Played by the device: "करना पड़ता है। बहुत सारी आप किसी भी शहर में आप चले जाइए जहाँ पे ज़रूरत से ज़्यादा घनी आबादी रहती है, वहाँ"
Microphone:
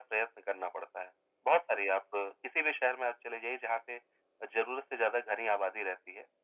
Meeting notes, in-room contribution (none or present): none